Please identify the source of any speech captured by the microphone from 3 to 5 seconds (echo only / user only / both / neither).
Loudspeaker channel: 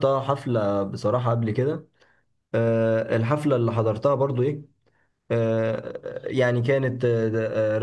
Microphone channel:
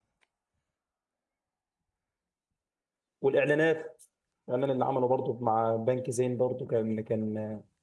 user only